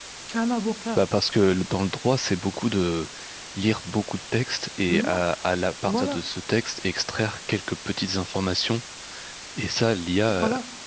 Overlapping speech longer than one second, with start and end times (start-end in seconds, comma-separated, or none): none